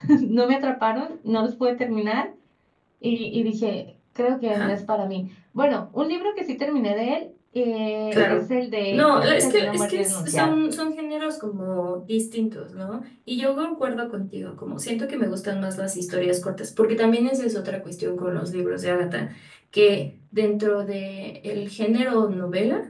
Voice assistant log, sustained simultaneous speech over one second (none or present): present